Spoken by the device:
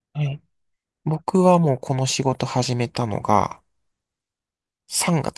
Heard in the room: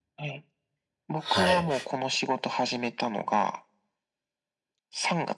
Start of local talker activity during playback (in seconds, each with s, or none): 1.3 s